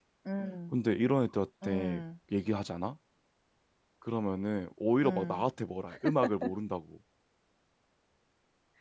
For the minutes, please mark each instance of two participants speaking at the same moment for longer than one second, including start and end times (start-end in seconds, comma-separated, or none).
none